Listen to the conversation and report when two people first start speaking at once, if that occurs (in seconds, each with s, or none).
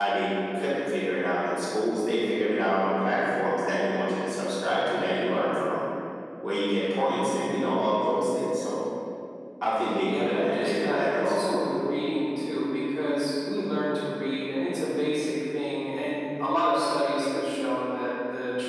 10.0 s